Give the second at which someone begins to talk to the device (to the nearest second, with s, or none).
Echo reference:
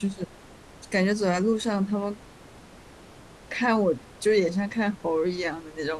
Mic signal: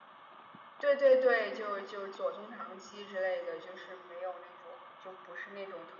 1 s